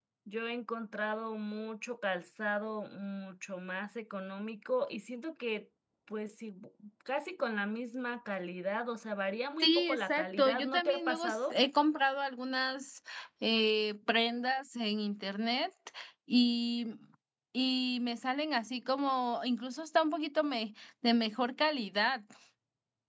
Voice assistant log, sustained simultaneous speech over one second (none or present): present